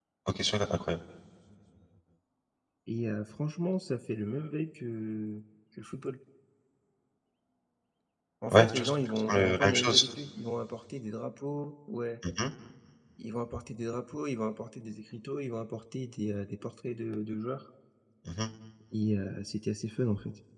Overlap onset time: 9 s

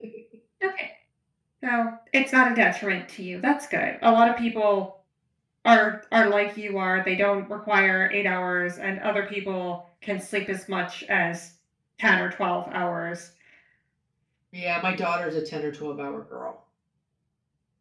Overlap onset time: none

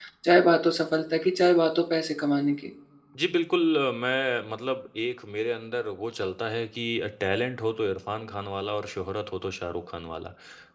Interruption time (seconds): none

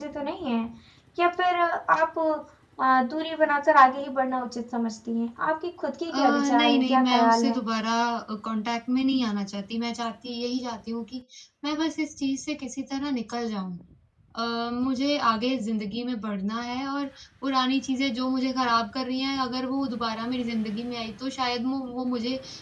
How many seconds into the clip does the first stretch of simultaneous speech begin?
6 s

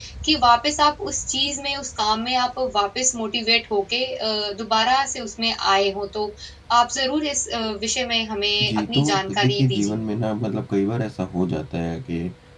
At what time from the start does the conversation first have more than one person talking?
9 s

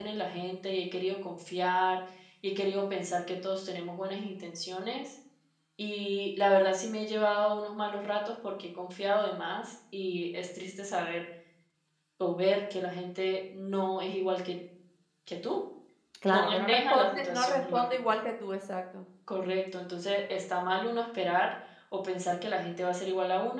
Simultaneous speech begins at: 16 s

